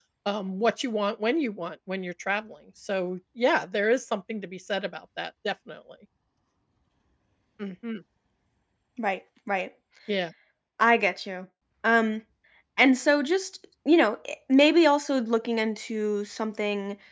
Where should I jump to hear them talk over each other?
none

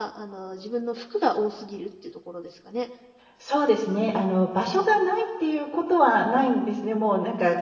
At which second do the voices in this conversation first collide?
none

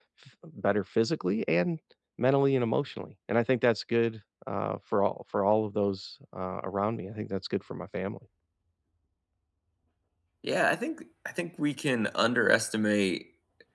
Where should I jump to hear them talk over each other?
none

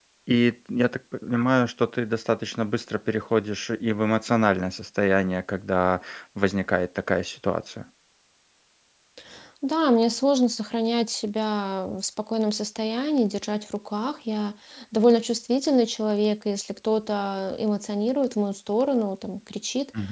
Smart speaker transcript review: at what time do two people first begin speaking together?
none

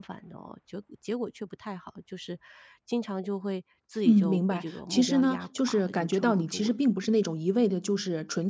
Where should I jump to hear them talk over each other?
4.0 s

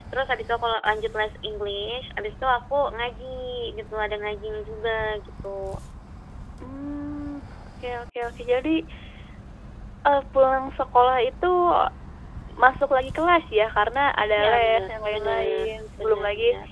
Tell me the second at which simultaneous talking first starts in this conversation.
14.4 s

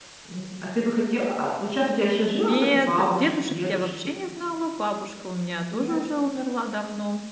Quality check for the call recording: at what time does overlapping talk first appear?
2.4 s

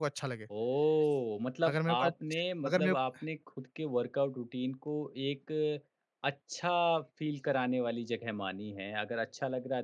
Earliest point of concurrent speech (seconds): 1.7 s

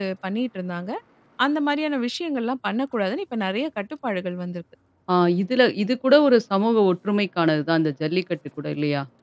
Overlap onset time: none

